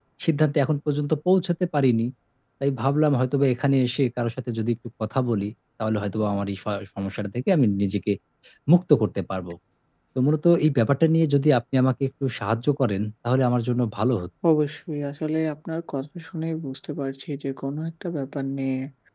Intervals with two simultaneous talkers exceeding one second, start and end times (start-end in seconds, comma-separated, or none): none